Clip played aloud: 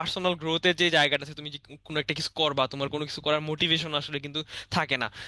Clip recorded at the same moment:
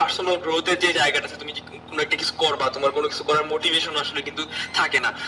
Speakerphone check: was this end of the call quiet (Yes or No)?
Yes